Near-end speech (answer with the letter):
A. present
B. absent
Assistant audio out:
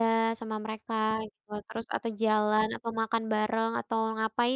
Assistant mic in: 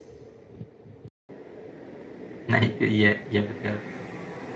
A